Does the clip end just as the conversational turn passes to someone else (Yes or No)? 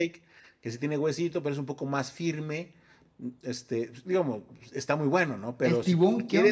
Yes